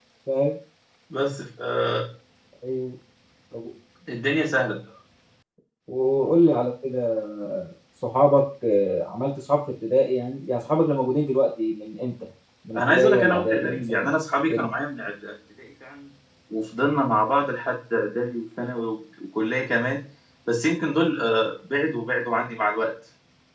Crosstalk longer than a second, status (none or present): present